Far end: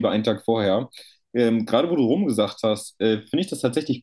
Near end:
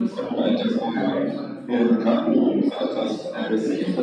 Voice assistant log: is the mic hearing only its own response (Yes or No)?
No